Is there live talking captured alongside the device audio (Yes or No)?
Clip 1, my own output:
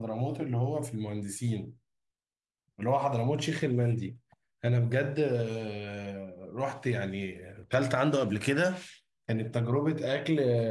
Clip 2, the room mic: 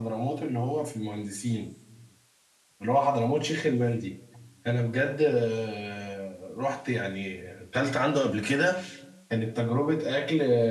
No